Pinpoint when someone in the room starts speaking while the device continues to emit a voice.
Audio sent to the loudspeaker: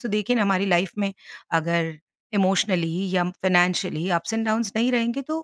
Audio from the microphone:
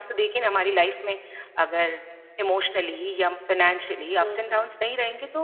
4.2 s

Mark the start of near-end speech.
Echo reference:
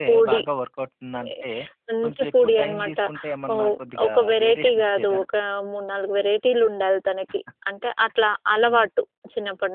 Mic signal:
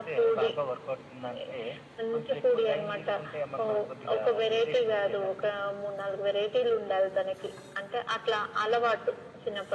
none

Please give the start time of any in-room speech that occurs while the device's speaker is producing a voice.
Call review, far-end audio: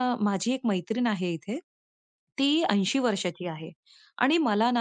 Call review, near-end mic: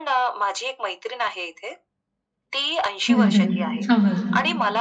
3.1 s

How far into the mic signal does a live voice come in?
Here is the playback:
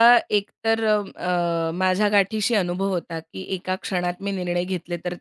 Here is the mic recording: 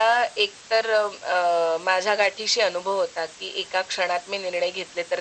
none

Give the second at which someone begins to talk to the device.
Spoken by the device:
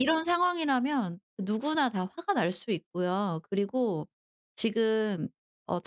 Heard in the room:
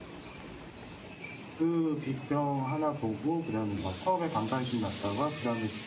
1.6 s

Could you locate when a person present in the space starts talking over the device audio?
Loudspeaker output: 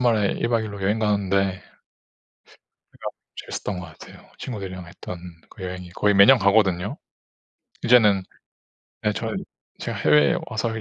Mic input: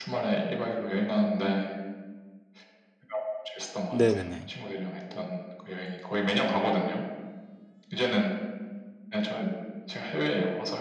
4.0 s

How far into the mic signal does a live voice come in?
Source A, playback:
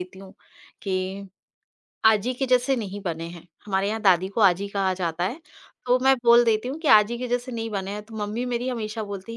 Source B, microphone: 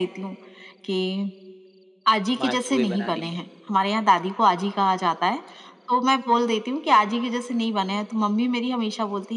2.4 s

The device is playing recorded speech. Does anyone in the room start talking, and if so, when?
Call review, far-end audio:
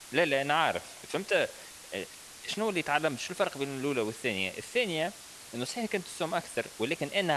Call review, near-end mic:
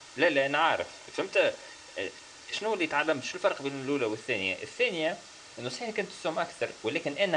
none

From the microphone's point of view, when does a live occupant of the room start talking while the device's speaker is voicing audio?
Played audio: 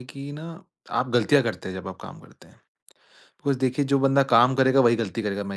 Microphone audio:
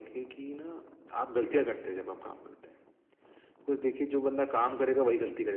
none

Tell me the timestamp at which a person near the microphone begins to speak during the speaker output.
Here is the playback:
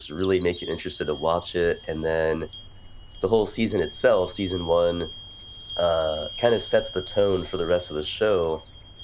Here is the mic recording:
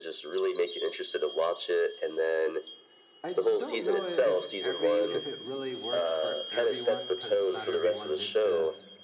3.2 s

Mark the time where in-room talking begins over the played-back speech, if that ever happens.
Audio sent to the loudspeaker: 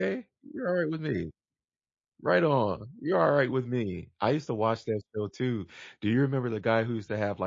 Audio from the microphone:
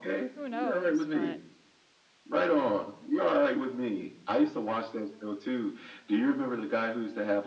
0.3 s

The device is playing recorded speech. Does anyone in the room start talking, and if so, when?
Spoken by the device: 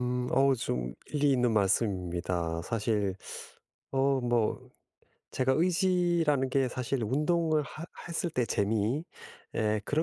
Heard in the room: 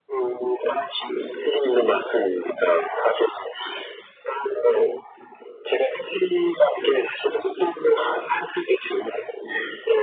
none

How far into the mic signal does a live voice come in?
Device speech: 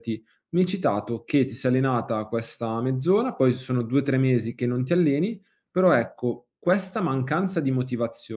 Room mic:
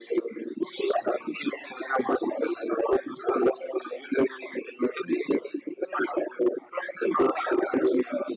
none

